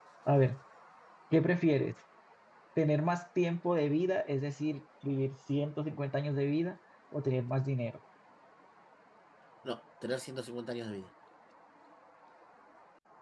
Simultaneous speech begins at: none

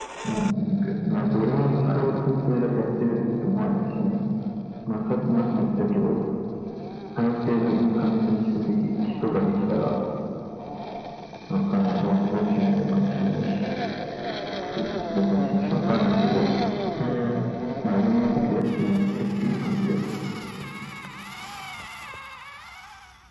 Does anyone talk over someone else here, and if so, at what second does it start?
0.7 s

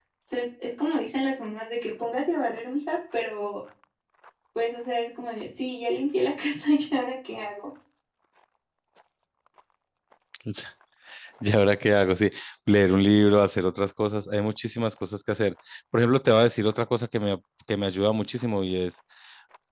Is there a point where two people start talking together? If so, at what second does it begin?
none

